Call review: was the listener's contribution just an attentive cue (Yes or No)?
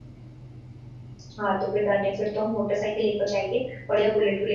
Yes